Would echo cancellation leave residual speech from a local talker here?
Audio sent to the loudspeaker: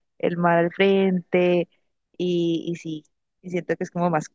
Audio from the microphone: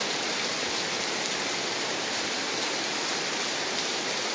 No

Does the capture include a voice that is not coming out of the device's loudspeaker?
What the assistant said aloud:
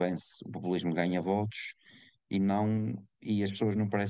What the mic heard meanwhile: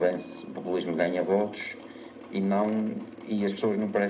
No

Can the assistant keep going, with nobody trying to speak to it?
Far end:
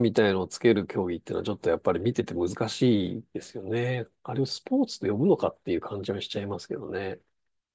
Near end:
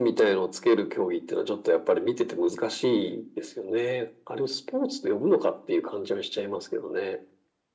Yes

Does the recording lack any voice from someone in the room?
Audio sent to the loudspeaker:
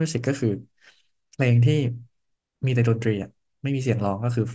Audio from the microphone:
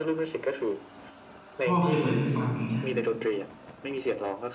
No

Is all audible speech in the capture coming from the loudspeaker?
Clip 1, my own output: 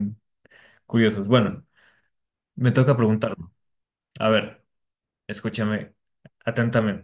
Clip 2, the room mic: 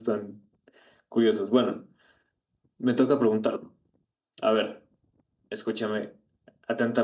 Yes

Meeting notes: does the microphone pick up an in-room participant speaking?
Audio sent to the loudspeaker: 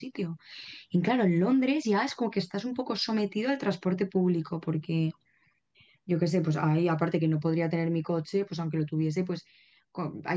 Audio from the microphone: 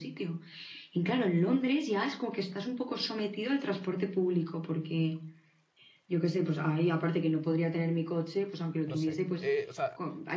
Yes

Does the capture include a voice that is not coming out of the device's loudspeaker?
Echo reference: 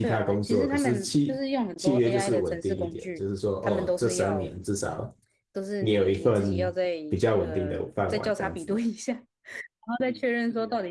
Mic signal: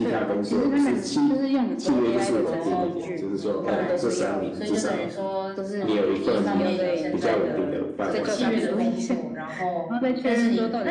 Yes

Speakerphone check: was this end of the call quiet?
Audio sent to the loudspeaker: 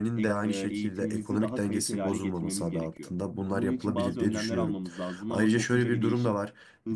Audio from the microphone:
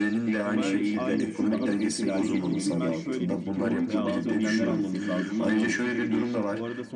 No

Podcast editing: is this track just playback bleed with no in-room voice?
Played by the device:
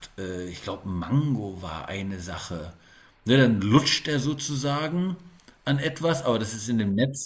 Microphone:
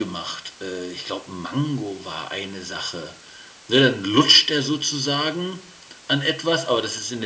Yes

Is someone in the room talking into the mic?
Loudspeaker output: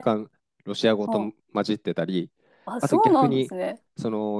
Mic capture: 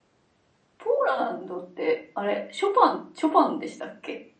Yes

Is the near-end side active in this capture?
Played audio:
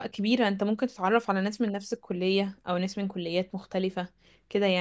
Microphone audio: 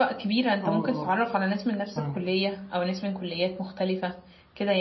Yes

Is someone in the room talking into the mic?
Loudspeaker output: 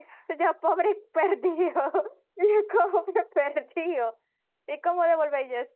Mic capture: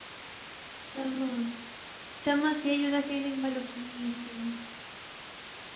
Yes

